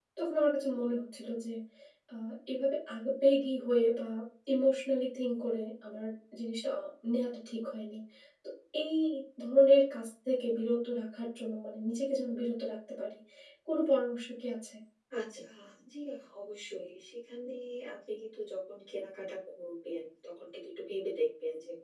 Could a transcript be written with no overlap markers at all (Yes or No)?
Yes